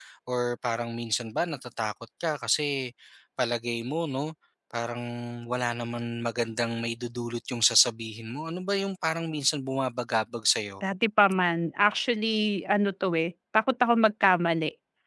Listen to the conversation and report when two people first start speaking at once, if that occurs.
none

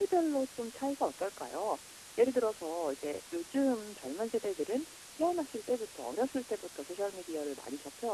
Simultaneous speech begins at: none

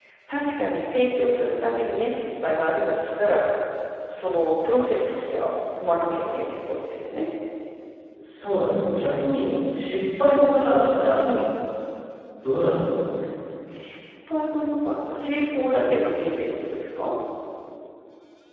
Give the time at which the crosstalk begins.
none

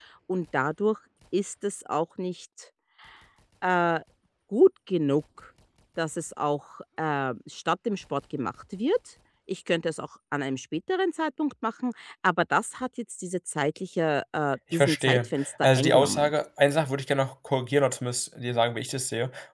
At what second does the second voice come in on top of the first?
15 s

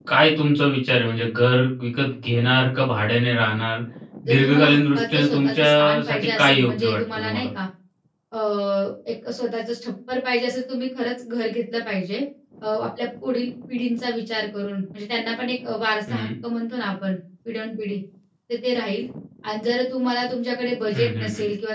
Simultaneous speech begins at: 4 s

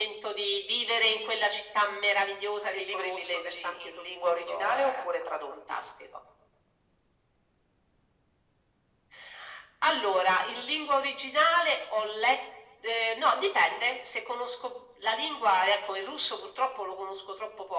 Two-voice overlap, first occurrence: 3 s

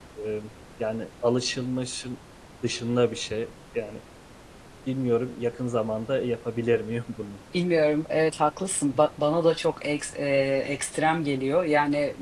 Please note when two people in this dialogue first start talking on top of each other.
none

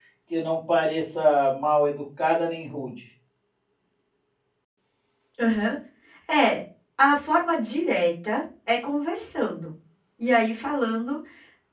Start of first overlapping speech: none

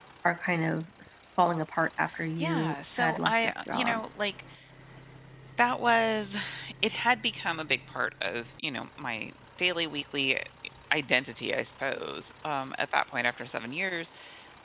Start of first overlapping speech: 2 s

